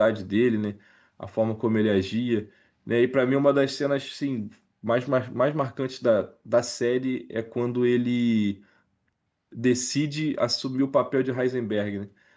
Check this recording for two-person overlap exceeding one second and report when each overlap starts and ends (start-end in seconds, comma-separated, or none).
none